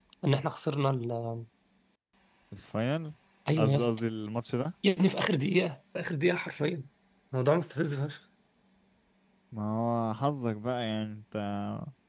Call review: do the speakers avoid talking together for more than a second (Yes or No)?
Yes